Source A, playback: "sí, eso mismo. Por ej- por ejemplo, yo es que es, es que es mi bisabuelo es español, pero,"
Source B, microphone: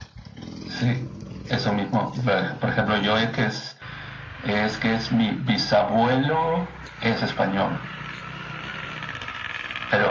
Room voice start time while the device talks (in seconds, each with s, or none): none